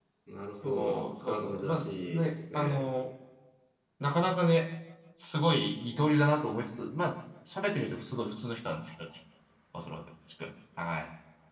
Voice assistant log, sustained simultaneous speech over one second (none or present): present